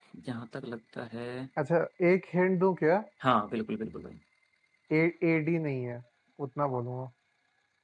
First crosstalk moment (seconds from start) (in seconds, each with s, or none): none